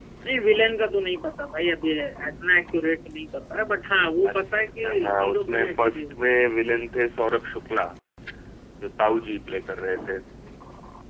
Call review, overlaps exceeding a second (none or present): present